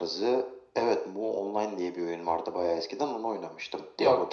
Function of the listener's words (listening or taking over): taking over